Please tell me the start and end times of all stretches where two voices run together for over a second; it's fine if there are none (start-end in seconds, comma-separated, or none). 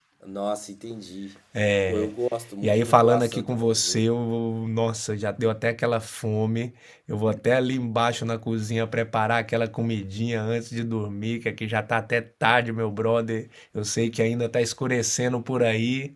2.6-4.0